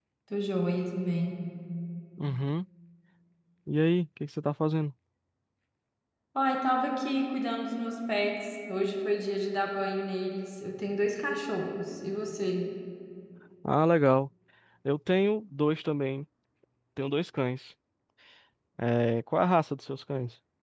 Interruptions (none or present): none